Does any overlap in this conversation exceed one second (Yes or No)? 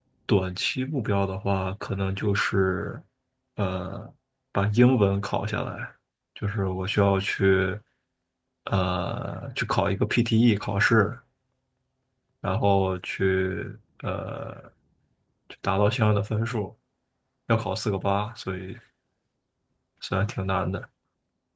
No